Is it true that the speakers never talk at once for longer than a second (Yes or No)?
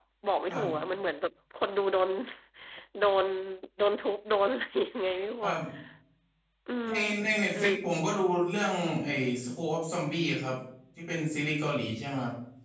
Yes